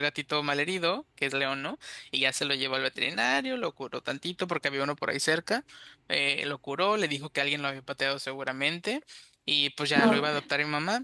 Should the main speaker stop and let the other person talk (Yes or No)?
No